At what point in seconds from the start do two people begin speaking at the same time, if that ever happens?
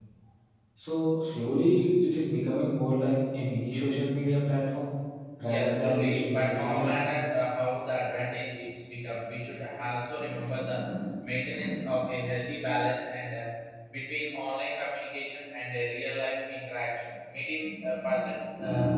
5.5 s

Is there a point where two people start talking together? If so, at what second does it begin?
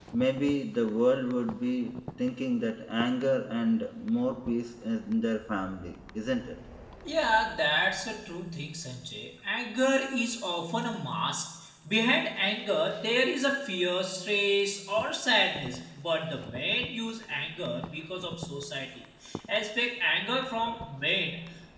none

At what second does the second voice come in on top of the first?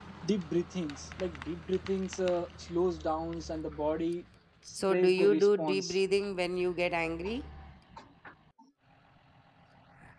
4.8 s

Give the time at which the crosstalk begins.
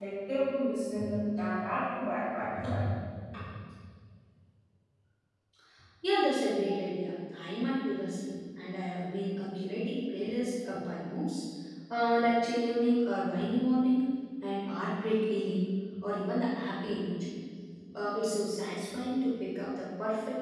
none

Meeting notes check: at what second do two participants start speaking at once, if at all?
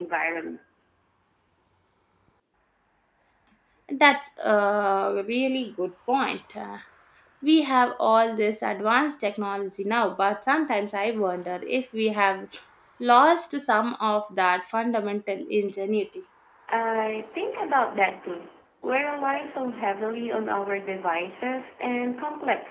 none

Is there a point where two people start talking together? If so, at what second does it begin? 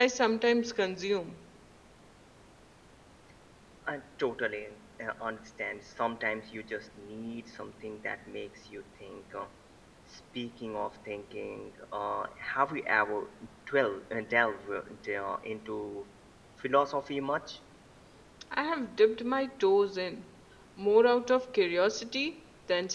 none

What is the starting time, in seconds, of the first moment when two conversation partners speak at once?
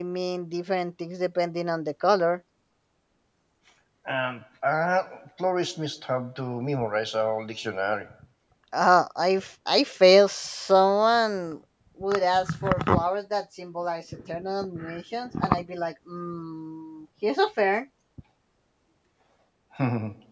none

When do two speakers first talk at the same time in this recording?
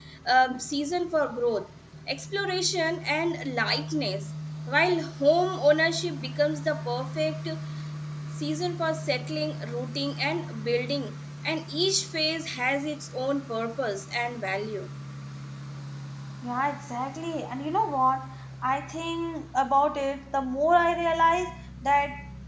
none

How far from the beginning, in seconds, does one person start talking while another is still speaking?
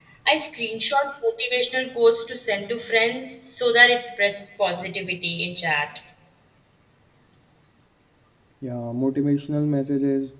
none

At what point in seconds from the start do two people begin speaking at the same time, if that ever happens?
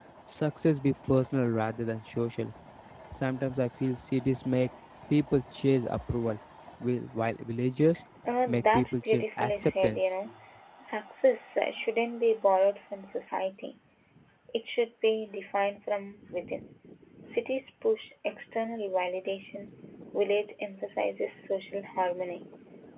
8.5 s

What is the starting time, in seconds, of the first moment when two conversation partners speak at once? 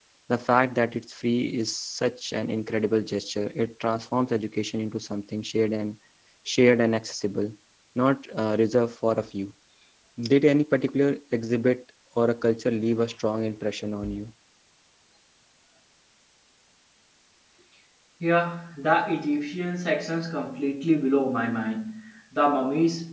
none

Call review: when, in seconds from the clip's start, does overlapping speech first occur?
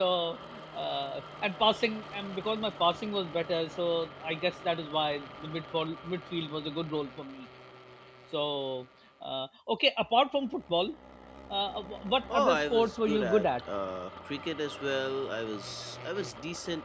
12.3 s

